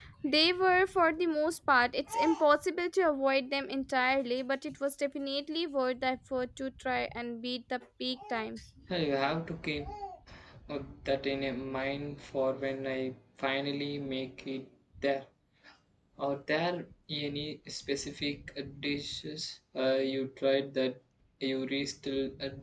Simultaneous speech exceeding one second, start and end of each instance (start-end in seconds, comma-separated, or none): none